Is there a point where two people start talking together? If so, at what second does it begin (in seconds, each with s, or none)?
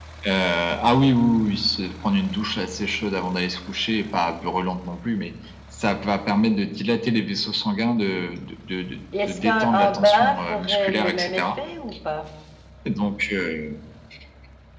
9.1 s